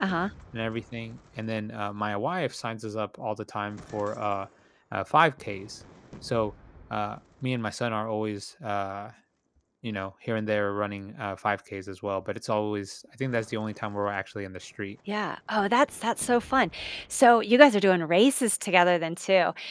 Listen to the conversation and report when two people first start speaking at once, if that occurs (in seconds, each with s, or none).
none